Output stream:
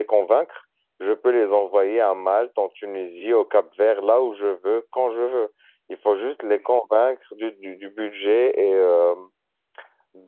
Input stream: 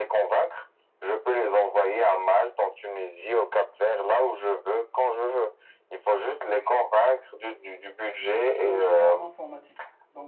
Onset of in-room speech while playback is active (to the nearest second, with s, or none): 8 s